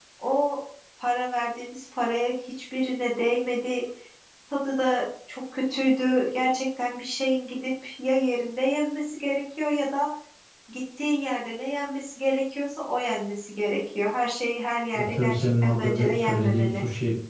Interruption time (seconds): 14.9 s

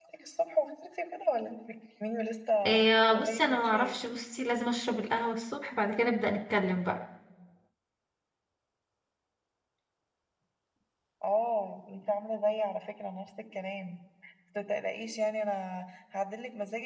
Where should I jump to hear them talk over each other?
2.6 s

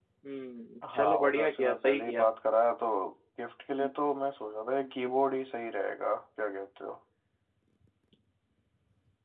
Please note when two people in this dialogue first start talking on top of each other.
0.9 s

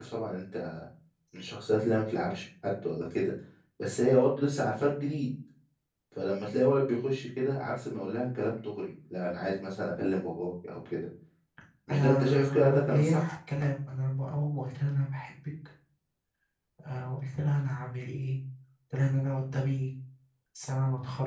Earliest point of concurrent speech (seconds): 11.9 s

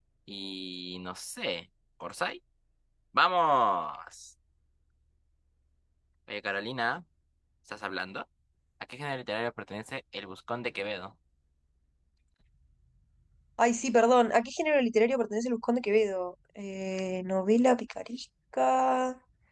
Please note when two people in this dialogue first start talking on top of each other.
none

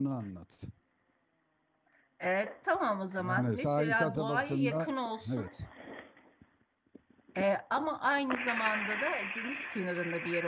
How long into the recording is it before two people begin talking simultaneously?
3.2 s

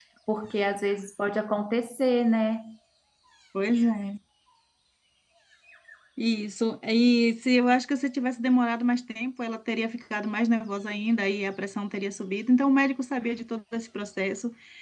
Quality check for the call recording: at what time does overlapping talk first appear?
none

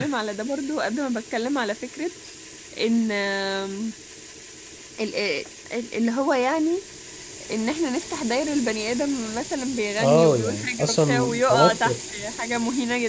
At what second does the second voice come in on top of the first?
10.0 s

